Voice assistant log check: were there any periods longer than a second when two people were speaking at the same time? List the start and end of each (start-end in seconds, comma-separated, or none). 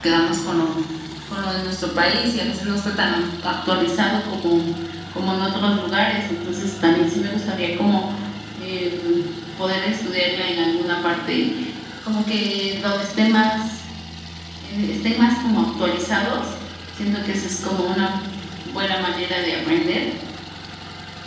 none